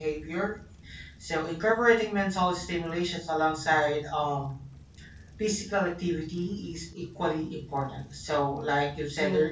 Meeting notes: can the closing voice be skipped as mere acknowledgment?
Yes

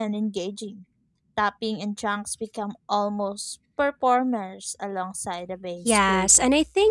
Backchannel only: No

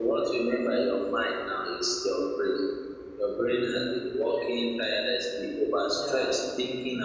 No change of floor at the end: Yes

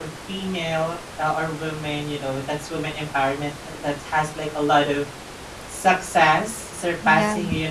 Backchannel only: Yes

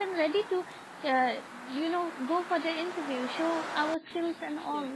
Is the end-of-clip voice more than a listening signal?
No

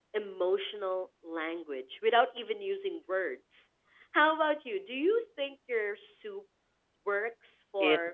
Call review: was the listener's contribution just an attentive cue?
No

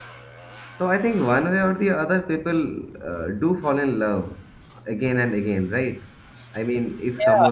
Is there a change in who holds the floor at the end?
Yes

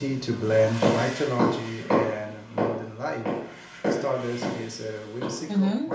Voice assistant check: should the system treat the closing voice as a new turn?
Yes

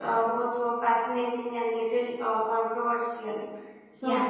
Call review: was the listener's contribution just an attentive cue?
Yes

